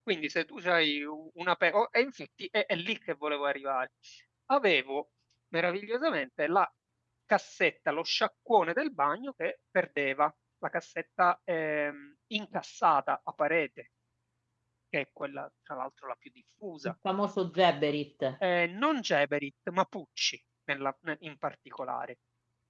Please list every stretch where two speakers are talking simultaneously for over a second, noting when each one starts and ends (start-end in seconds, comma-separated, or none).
none